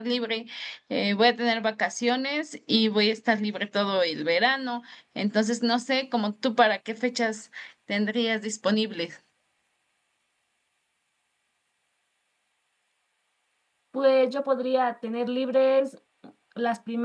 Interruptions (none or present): none